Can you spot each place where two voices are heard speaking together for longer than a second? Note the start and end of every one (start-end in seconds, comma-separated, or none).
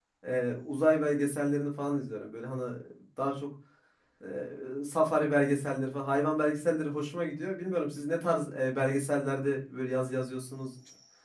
none